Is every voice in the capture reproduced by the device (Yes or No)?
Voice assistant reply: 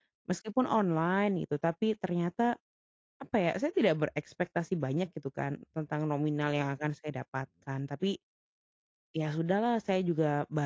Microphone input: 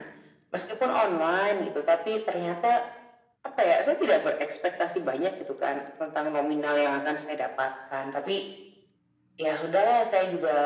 Yes